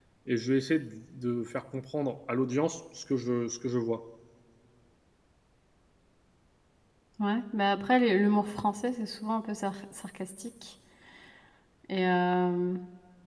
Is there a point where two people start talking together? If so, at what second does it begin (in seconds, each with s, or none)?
none